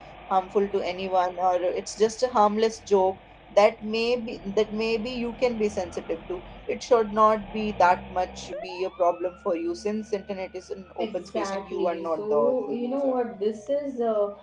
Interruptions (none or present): present